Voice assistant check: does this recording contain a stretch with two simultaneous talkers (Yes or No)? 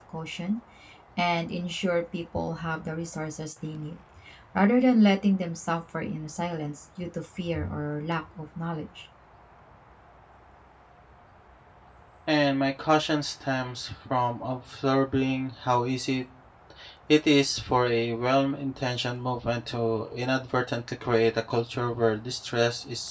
No